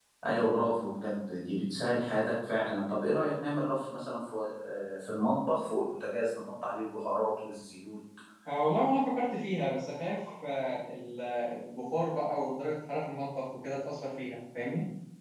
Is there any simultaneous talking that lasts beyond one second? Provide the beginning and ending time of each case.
none

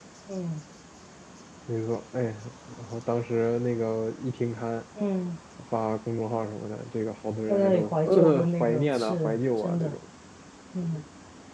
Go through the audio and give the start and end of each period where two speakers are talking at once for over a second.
7.5-10.0

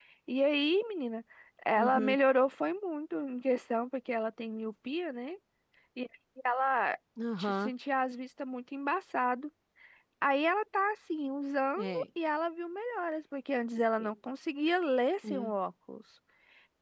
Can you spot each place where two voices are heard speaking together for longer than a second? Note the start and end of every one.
none

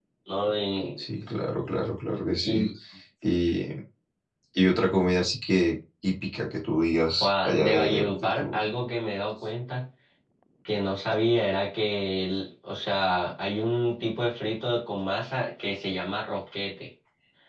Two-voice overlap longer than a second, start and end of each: 7.2-8.6

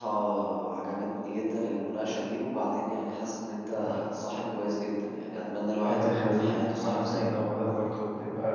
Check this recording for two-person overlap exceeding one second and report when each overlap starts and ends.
5.8-7.3

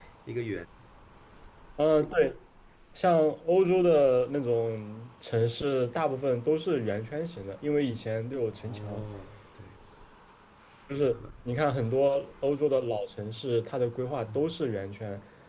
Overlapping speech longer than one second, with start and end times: none

